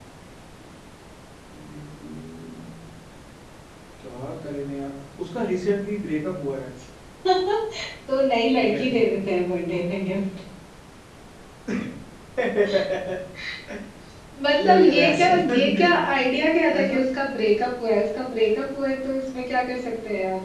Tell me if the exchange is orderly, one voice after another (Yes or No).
No